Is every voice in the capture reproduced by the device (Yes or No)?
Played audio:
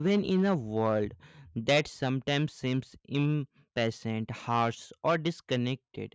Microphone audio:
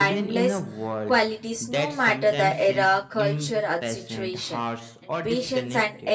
No